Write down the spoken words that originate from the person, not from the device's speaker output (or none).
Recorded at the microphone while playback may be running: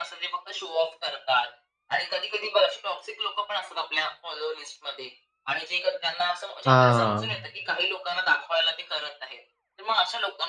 हां,